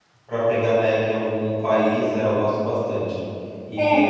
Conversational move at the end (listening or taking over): listening